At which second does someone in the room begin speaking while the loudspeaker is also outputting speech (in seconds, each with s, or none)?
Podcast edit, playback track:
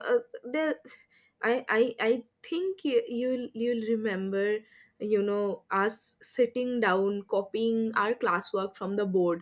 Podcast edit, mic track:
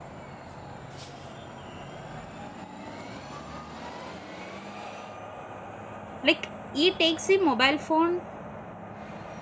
6.2 s